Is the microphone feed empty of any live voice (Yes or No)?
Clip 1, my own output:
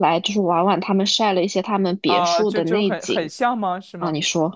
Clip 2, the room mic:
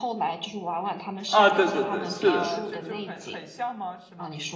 No